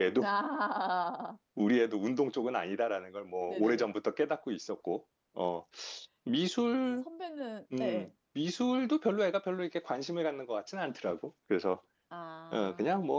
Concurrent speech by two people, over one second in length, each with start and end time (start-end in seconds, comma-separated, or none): none